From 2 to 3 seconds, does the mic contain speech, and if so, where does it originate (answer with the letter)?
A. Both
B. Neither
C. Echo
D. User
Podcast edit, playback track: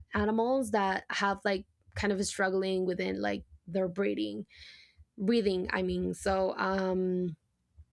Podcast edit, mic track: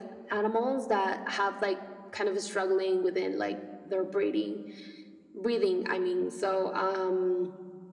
C